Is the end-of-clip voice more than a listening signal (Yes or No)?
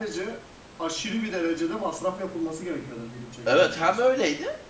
Yes